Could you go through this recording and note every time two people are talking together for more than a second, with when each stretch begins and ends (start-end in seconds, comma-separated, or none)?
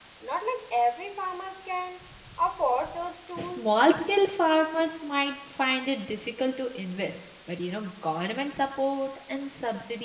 none